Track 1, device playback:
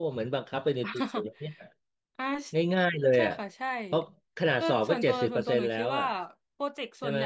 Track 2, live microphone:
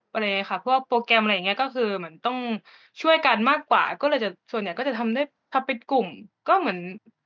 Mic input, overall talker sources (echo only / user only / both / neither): user only